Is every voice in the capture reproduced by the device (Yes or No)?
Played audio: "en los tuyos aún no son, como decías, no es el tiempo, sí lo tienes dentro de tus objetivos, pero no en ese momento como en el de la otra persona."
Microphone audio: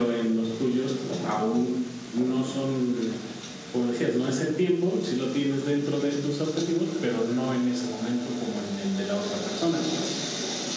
Yes